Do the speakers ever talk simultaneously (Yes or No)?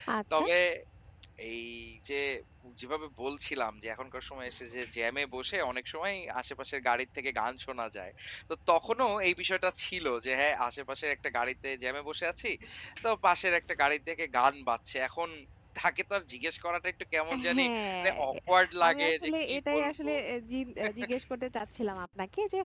Yes